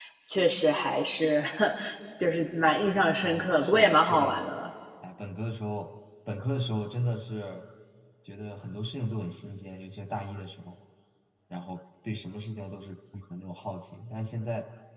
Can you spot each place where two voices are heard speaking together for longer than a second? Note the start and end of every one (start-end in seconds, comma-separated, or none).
3.2-4.5